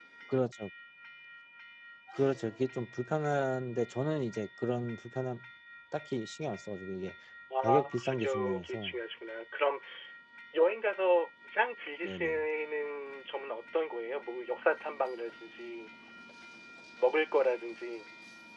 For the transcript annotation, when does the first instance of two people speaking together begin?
7.6 s

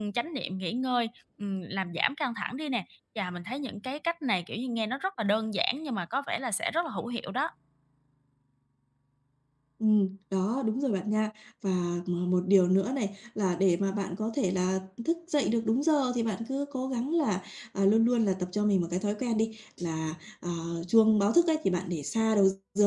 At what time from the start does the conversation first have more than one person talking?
none

